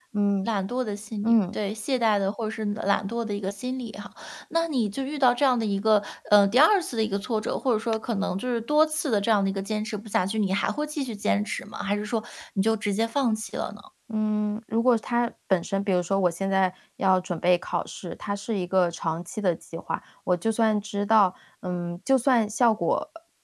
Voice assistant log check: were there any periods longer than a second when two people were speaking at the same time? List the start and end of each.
none

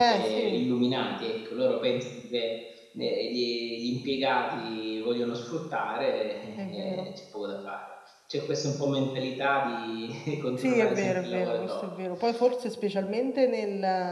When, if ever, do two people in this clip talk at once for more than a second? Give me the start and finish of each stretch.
10.6-11.8

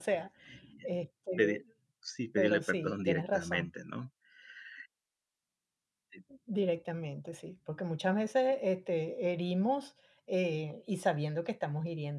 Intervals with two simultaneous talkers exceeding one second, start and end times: 2.4-3.7

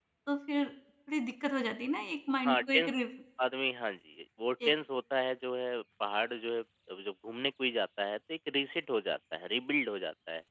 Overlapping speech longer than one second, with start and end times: none

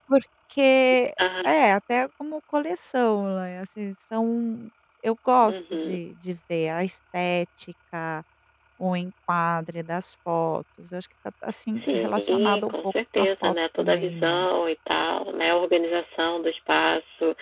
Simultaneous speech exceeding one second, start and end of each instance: 11.8-14.5

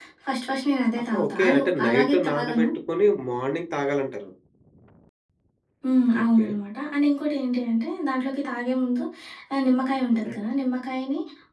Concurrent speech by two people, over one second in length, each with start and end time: 1.1-2.6

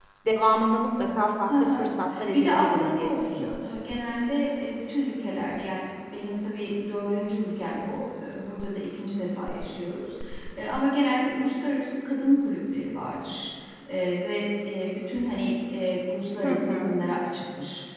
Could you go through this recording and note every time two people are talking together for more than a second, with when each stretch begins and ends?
2.3-3.6

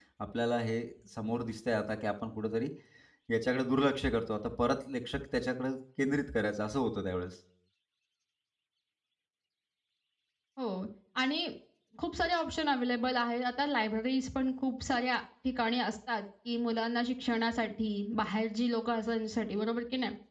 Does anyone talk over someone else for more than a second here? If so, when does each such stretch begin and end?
none

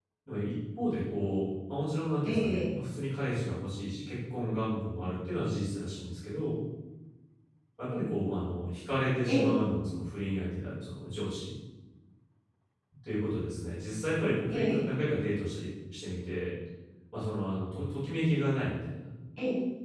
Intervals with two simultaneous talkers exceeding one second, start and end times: none

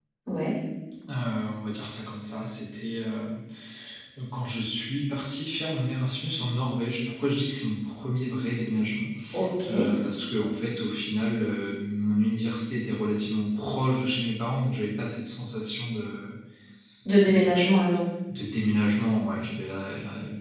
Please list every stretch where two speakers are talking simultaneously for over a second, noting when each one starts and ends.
none

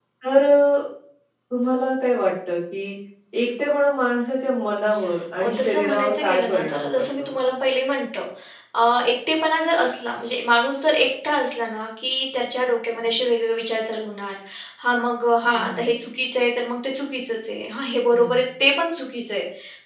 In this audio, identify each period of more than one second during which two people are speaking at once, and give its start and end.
5.4-7.3

